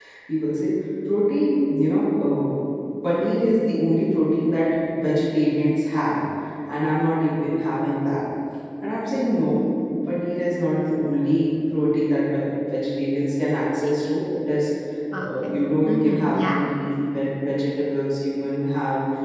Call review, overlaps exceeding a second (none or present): present